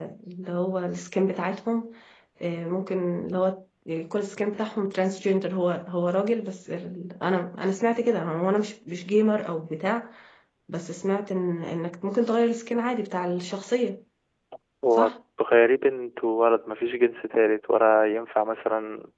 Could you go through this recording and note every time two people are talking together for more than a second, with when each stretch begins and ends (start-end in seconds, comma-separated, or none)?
none